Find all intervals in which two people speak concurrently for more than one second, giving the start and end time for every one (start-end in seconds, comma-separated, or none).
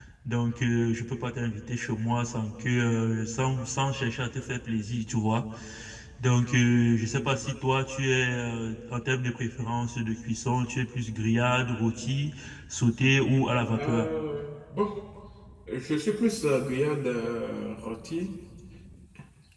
none